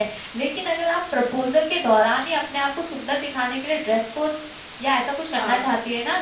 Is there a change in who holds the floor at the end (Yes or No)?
No